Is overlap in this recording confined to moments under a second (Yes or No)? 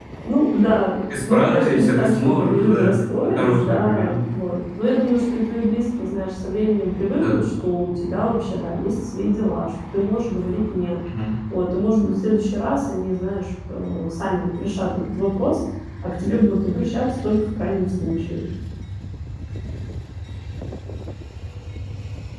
No